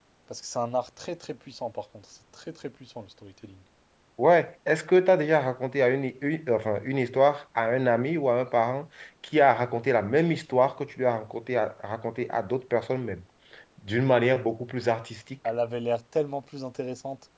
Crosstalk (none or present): none